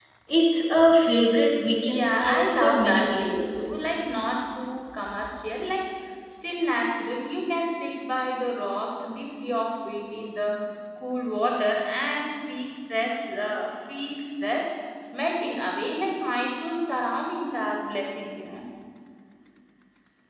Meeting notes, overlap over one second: present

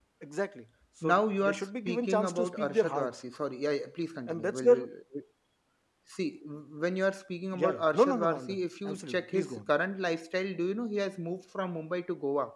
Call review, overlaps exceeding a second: present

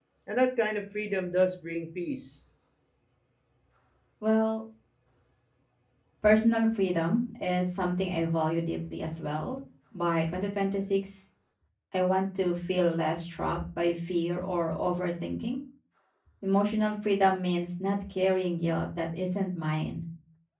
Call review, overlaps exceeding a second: none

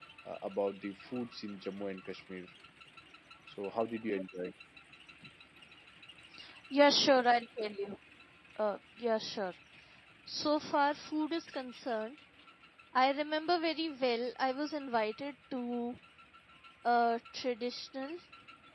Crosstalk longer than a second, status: none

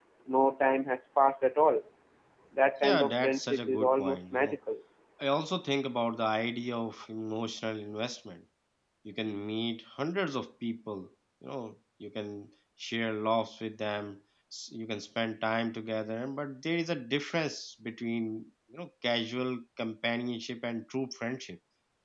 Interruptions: present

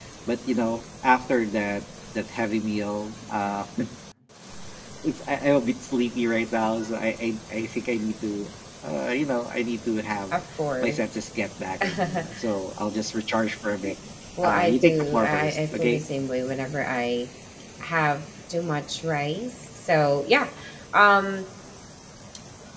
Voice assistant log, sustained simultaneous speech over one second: present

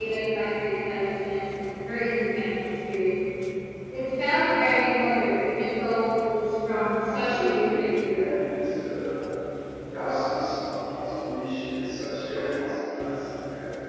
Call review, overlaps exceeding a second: present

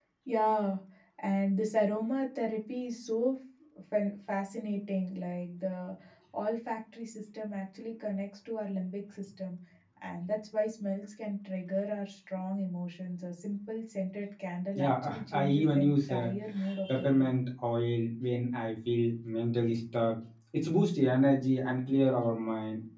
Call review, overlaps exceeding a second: present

